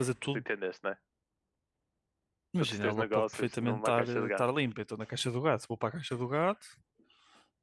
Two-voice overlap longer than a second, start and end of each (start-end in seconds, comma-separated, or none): 2.6-4.4